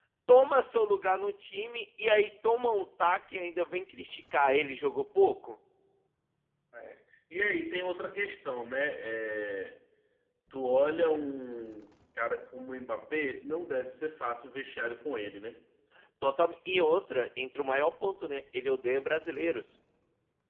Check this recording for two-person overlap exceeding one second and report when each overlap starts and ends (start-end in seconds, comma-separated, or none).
none